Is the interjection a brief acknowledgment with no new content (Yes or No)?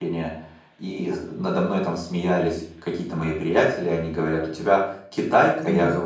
Yes